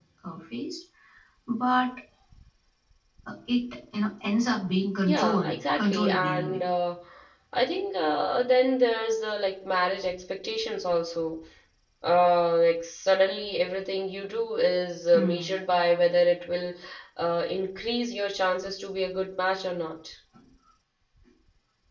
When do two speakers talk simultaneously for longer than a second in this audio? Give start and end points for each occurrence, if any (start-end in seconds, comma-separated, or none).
5.1-6.6